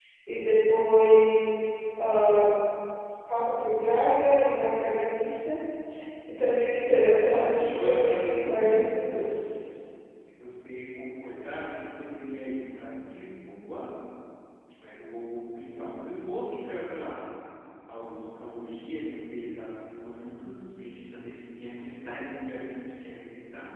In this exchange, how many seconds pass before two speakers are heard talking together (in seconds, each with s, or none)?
7.3 s